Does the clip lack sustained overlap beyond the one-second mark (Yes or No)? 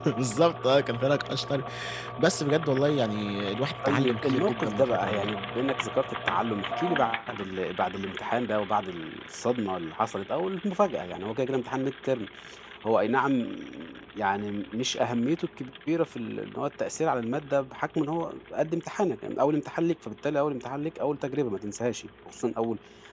No